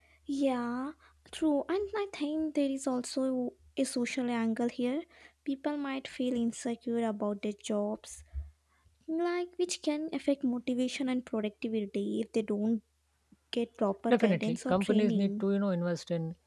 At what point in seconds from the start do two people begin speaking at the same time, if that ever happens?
14.1 s

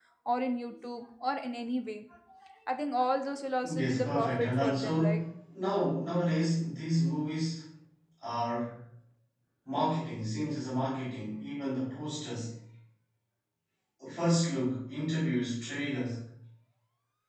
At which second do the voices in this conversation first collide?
3.6 s

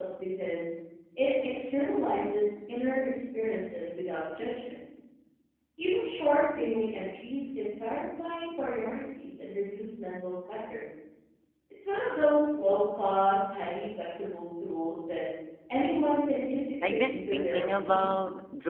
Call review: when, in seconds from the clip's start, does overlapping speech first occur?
16.8 s

